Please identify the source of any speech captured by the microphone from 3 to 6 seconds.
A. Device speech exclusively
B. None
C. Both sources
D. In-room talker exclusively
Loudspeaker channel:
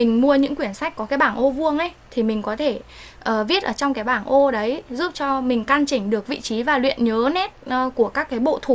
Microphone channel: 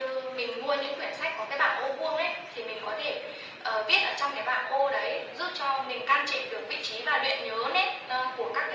A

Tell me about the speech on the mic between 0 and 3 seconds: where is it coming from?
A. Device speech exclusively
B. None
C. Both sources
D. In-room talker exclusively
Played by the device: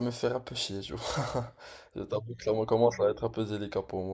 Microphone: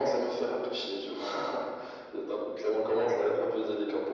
A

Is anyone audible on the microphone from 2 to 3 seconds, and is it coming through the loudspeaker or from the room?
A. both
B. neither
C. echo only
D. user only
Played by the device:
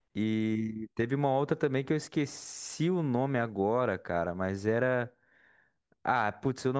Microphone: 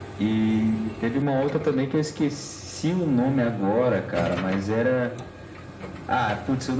C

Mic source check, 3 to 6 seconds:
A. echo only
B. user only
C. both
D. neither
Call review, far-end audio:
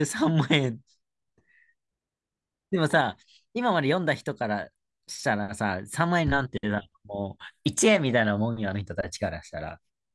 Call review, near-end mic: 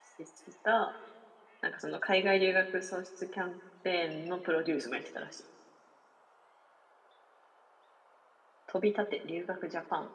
B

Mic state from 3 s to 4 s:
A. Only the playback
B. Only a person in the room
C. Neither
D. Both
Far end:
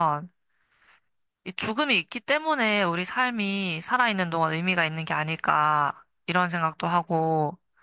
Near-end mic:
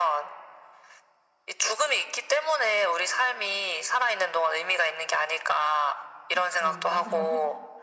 A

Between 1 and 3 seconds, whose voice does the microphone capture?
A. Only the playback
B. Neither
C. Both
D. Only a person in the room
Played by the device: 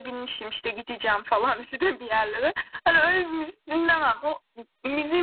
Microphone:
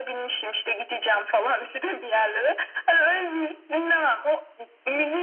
A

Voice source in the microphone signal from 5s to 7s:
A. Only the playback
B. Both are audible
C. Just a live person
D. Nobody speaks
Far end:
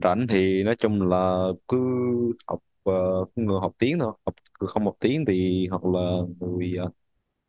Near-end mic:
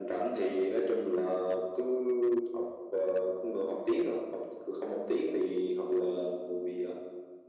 A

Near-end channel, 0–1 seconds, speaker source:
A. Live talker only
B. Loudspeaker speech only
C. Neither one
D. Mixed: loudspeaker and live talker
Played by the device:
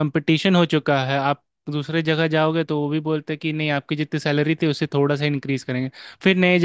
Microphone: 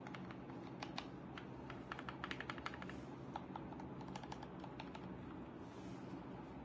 C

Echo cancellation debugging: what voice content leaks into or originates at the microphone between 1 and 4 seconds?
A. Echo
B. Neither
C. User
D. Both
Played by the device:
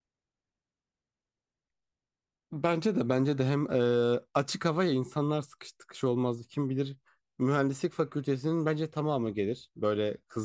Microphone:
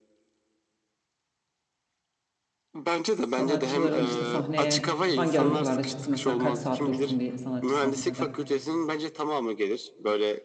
D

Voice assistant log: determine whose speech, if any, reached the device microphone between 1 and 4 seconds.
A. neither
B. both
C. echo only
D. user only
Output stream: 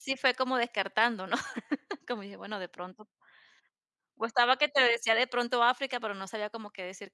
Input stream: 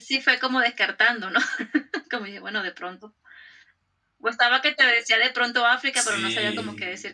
C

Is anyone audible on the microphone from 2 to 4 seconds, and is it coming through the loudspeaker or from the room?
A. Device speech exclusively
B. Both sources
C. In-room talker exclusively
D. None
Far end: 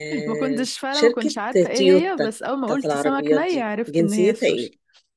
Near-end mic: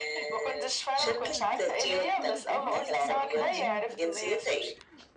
B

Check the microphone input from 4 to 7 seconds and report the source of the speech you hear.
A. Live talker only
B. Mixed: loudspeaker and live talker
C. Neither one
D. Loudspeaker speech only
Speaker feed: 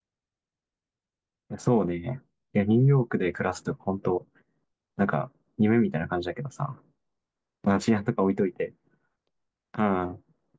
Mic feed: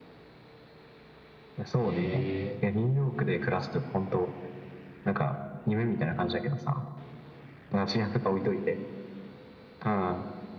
D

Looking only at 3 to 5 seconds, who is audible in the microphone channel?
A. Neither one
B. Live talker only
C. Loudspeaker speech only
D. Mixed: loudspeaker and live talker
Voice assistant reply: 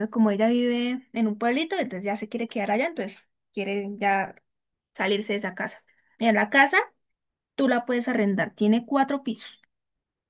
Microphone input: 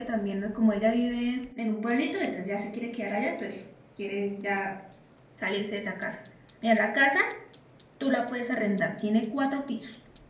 C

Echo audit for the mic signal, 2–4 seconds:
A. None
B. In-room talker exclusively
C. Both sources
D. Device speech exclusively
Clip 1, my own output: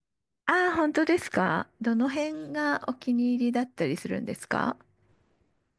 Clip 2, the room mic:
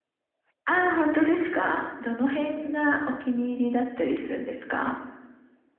D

